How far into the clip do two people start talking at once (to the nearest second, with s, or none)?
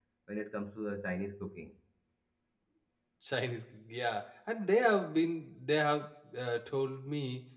none